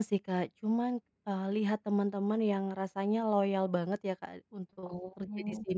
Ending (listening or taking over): listening